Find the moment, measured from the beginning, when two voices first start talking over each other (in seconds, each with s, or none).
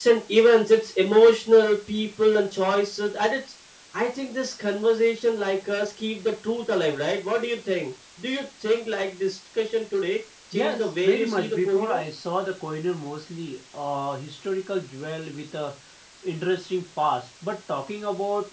10.5 s